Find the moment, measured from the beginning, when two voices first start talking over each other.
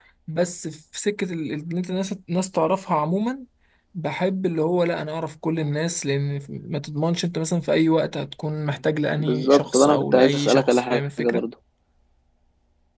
9.2 s

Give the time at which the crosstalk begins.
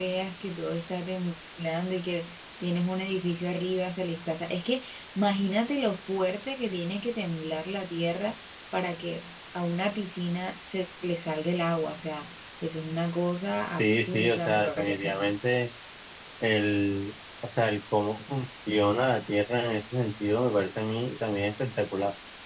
13.7 s

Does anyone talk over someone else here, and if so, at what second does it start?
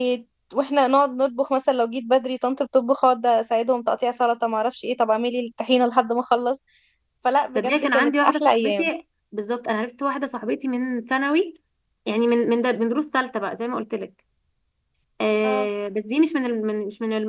7.6 s

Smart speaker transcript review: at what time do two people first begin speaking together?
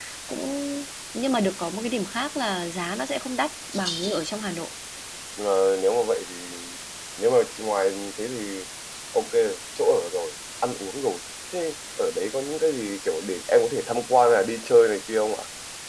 none

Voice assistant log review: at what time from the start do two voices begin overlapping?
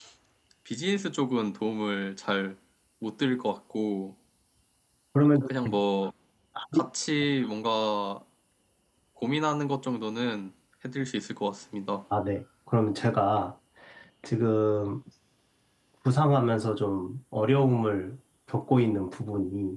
none

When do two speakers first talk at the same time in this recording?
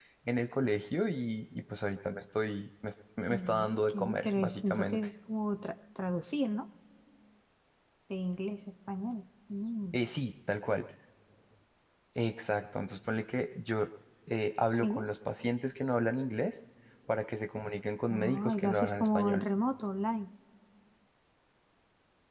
3.3 s

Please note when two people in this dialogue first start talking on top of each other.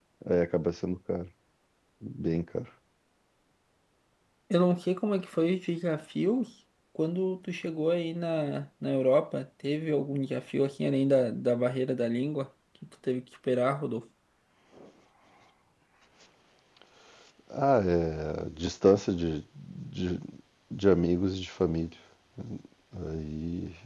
none

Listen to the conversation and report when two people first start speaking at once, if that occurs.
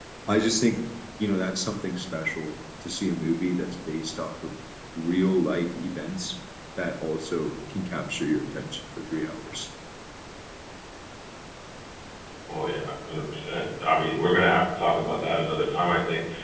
none

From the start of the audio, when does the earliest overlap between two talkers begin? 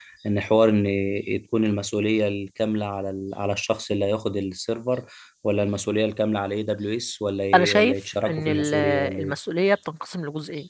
7.5 s

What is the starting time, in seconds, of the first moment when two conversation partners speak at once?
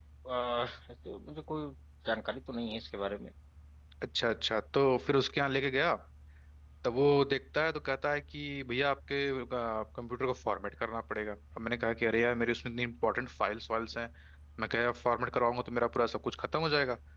none

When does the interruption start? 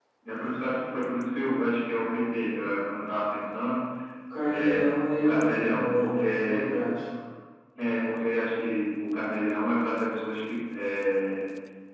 4.5 s

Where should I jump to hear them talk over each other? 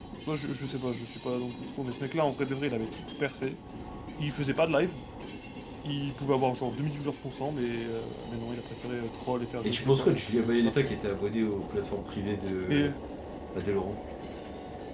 9.6 s

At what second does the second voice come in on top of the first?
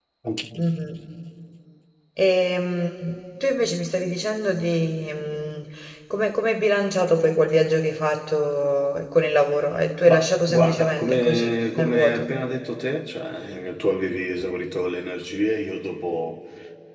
10.1 s

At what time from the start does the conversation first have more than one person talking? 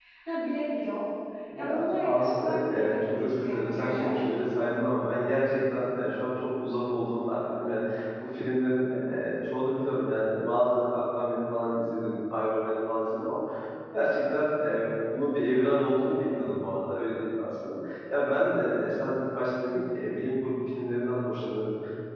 1.6 s

